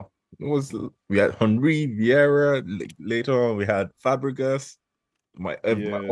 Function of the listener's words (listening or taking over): listening